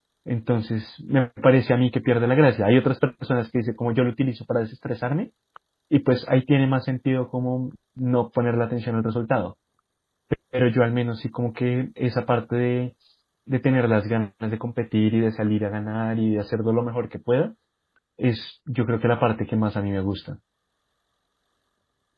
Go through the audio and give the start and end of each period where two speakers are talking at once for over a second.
none

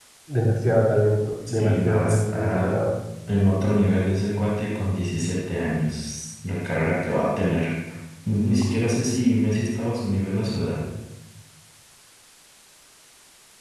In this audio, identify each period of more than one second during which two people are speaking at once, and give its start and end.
1.5-2.8

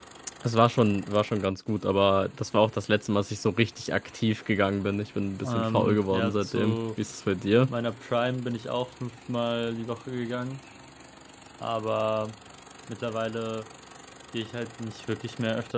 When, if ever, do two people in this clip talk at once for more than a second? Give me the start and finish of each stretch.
5.4-6.8

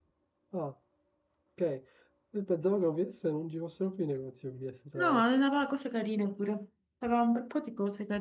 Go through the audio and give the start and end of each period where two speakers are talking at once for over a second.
none

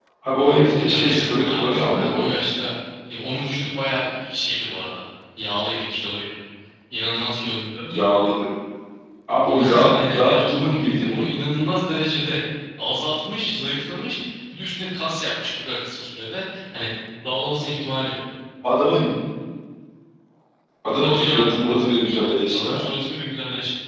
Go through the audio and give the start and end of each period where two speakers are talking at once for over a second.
0.8-2.4, 9.4-11.1

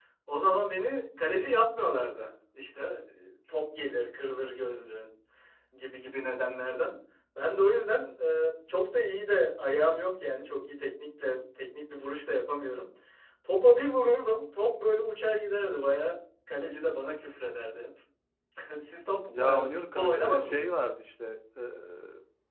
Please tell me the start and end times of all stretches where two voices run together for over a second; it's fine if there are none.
19.3-20.8

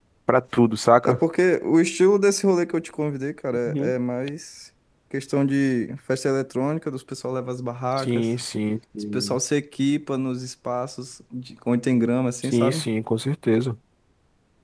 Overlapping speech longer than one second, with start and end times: none

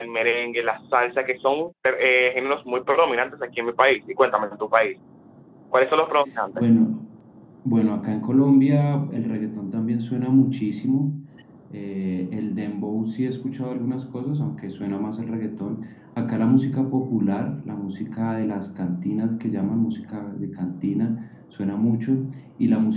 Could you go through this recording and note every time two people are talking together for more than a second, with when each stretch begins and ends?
none

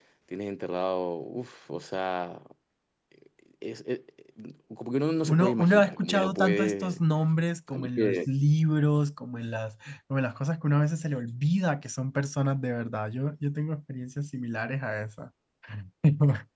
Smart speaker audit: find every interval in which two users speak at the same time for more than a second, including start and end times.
5.3-7.0

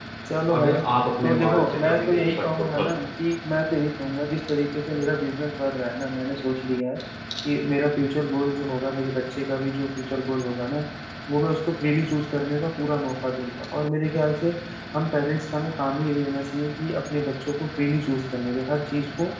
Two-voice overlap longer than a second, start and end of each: 1.2-2.9

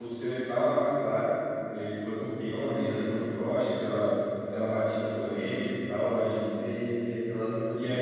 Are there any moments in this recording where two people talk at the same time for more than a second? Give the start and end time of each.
none

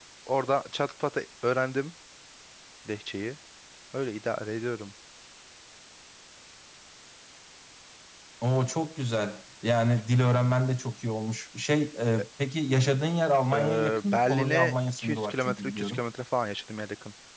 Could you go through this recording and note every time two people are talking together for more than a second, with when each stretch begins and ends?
13.5-16.0

